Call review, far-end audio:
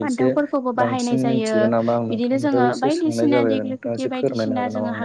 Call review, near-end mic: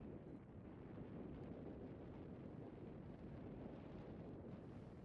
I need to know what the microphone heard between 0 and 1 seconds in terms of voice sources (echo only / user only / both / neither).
neither